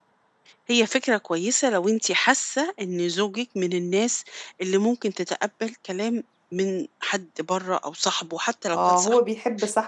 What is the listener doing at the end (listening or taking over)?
taking over